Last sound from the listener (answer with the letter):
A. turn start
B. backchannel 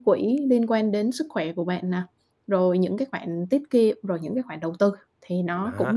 A